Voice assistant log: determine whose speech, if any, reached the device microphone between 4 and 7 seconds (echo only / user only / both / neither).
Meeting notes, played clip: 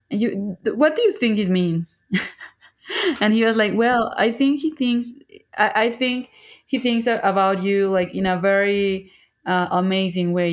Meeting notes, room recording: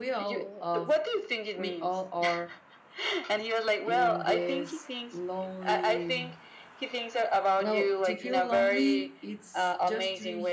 both